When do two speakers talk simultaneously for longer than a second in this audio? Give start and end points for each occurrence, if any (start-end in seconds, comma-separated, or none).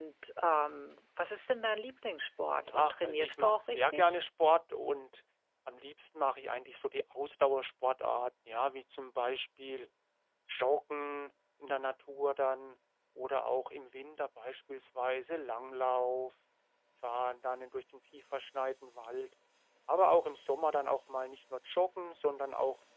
2.7-4.1